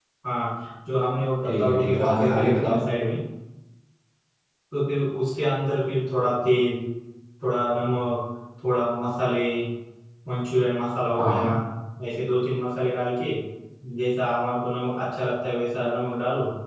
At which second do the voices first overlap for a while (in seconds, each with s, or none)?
1.4 s